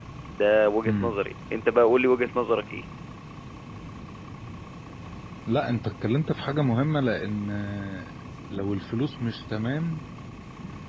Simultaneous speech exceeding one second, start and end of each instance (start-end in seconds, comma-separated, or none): none